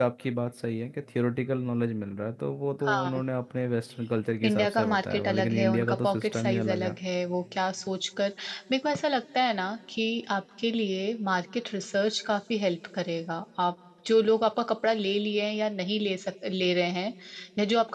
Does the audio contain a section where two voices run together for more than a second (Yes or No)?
Yes